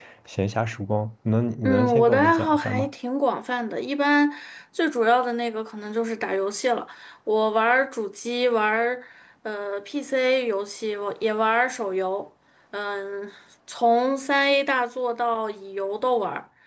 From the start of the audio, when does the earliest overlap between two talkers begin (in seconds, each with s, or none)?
1.6 s